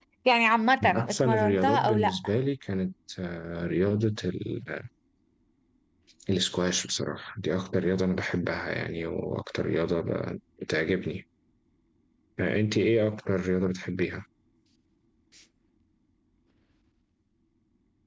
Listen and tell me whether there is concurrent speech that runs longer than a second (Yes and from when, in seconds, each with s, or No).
Yes, from 0.8 s